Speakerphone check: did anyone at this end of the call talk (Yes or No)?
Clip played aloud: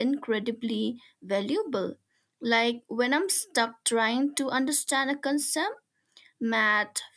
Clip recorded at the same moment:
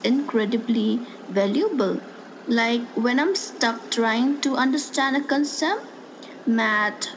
No